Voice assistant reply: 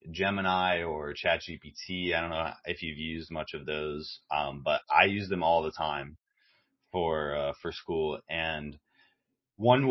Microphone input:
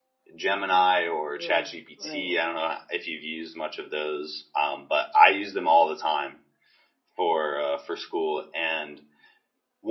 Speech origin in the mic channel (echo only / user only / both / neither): both